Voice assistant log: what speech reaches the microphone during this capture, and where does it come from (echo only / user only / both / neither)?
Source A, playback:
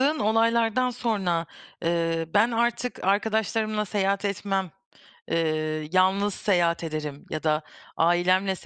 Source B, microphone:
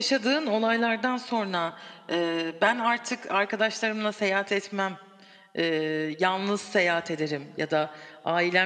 echo only